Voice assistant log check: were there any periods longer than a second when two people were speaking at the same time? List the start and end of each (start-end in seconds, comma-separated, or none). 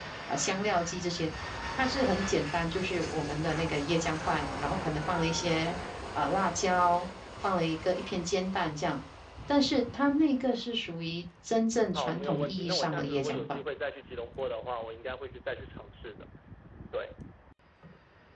11.9-13.6